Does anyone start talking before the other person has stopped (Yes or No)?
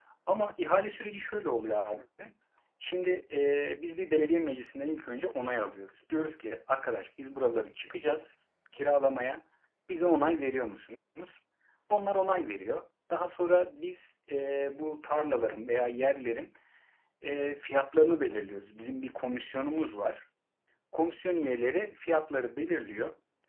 No